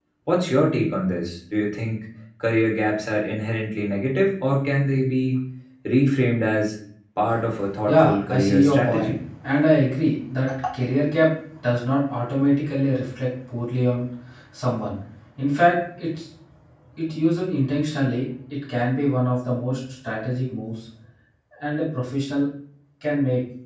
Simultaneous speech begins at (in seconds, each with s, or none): 7.8 s